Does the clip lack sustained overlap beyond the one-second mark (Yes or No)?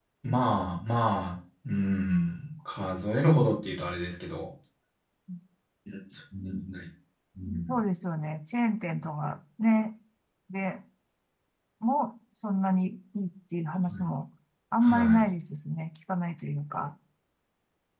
Yes